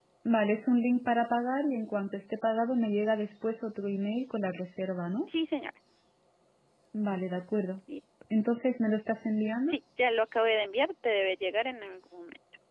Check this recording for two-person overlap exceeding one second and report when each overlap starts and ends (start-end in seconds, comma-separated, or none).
none